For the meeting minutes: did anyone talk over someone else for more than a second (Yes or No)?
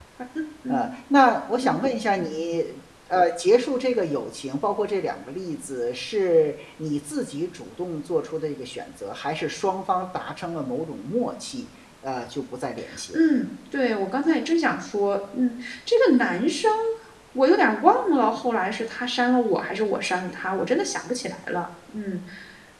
No